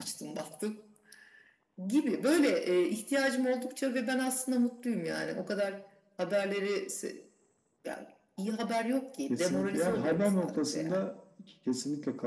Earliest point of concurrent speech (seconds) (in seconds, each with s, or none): 9.3 s